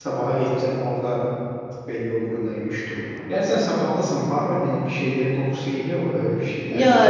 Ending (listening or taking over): taking over